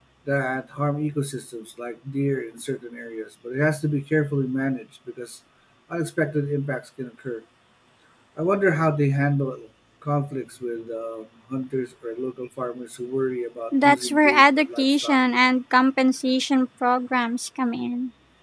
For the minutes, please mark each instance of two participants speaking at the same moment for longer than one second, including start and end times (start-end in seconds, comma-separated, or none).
13.8-15.2